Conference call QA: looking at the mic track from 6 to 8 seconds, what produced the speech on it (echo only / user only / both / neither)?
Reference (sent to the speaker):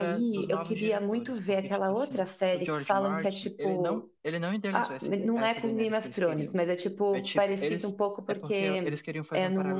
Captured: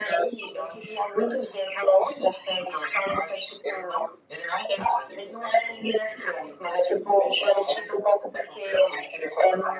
echo only